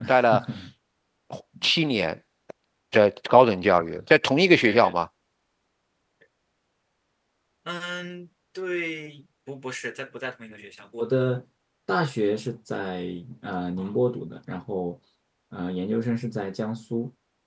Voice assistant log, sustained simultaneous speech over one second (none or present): none